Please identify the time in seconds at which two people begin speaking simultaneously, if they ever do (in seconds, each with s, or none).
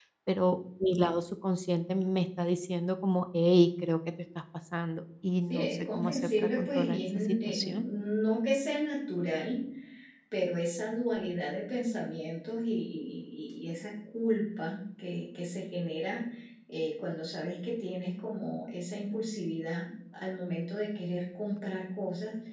5.5 s